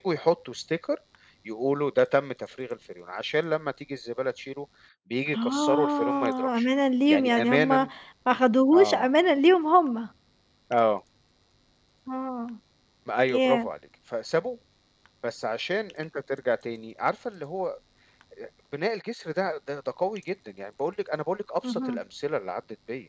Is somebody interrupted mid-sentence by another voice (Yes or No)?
Yes